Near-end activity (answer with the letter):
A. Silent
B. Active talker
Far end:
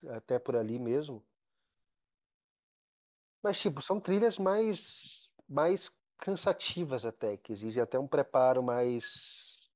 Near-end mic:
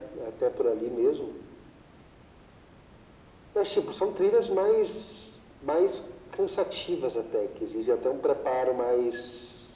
A